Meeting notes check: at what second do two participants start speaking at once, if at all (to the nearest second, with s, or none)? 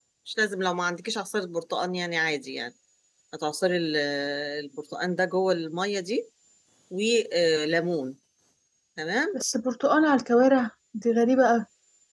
none